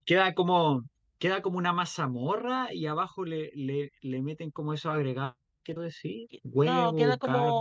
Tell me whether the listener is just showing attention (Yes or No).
No